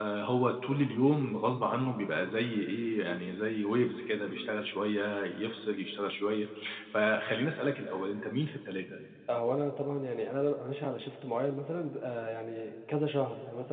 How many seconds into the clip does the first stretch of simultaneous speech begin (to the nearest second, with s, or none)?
none